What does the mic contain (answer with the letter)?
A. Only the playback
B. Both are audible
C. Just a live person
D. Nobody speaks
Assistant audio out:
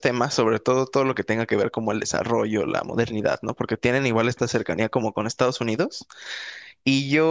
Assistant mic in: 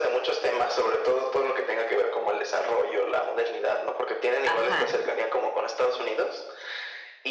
B